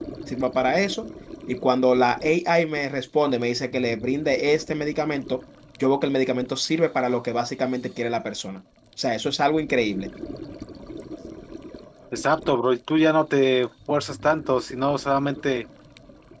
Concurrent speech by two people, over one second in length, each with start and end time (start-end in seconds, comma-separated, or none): none